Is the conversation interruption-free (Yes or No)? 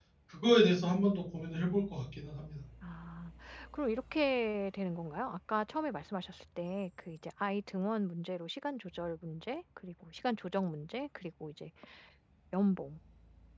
Yes